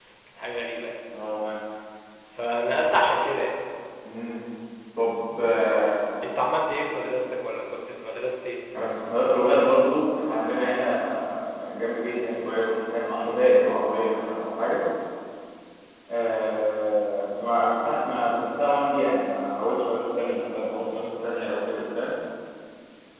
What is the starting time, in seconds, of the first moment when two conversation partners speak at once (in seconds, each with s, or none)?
none